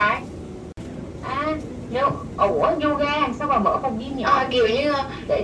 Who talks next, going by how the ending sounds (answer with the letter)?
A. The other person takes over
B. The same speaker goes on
A